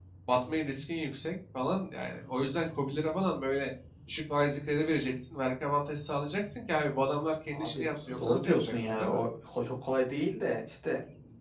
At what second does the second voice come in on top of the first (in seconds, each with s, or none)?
7.5 s